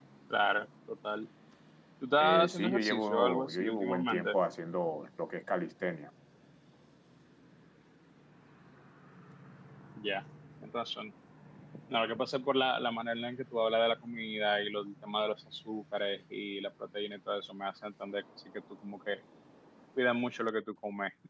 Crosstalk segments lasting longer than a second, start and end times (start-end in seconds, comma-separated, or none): 2.2-4.3